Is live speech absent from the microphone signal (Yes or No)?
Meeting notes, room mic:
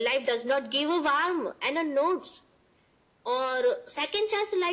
Yes